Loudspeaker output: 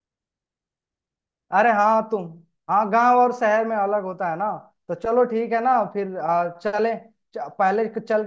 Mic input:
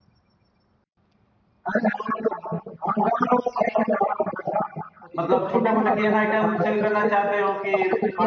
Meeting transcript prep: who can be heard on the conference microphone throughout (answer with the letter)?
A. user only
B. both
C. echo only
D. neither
B